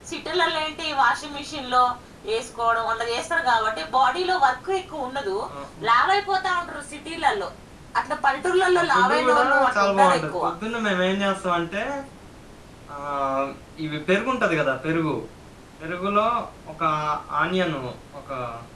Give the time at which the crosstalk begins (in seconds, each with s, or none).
8.8 s